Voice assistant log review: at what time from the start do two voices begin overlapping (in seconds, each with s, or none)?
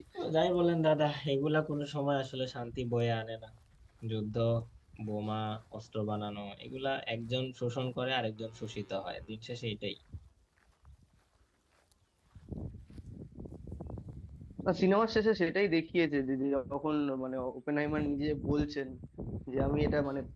none